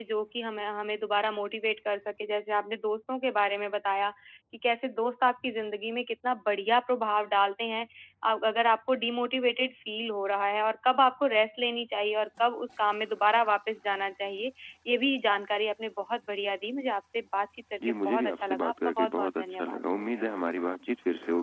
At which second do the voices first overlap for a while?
18 s

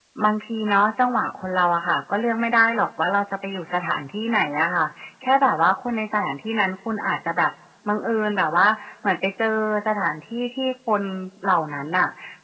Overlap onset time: none

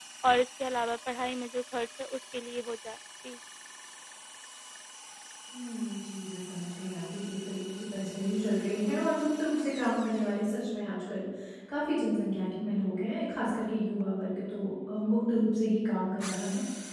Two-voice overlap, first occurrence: none

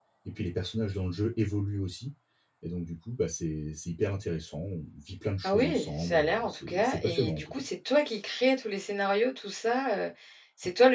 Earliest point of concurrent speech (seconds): 5 s

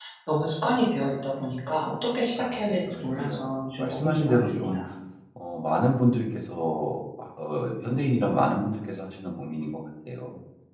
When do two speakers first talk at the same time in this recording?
2 s

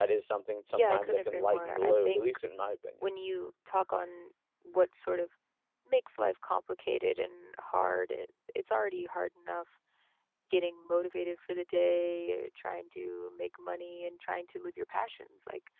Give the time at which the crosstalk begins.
1 s

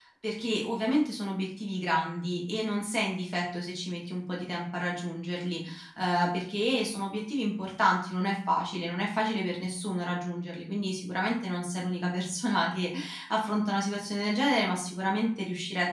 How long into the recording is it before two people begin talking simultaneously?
none

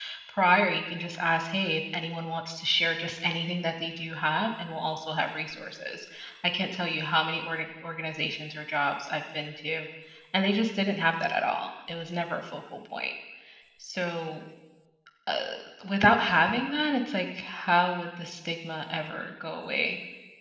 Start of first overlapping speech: none

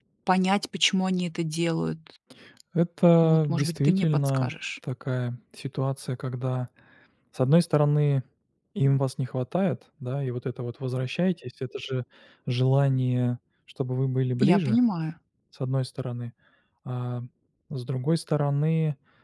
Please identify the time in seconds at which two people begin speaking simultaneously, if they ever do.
3 s

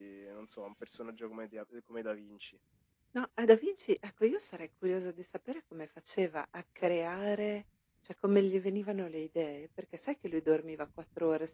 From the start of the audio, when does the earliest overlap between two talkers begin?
none

